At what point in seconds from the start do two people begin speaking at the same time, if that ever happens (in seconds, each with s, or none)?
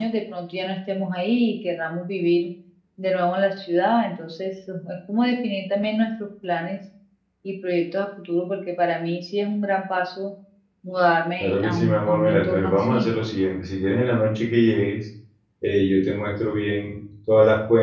11.4 s